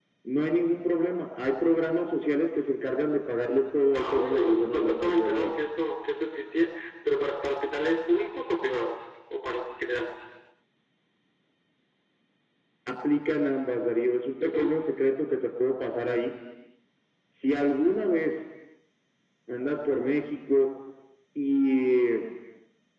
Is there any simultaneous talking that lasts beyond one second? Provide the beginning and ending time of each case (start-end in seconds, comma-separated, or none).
3.9-5.5